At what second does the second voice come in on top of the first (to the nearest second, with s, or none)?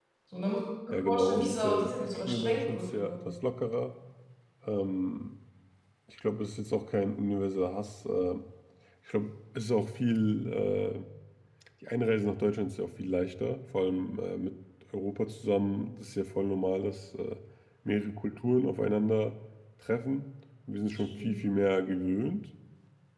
1 s